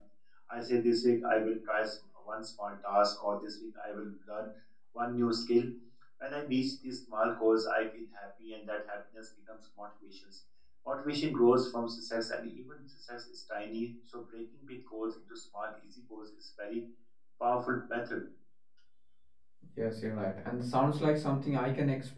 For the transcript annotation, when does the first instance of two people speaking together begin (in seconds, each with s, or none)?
none